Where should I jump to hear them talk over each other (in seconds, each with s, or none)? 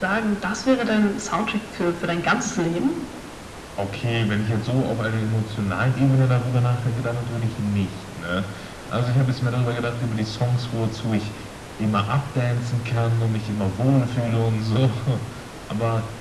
none